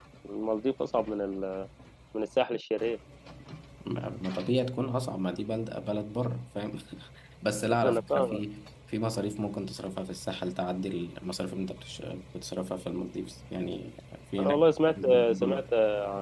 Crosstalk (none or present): present